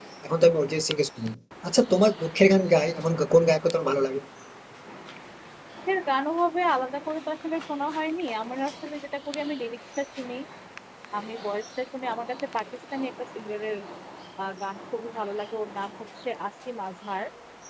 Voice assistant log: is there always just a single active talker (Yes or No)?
Yes